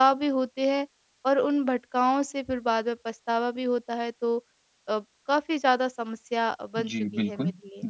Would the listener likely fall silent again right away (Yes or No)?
No